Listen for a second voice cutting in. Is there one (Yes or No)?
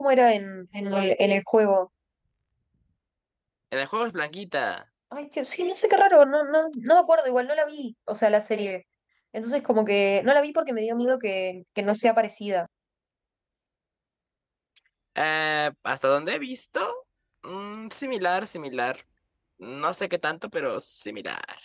No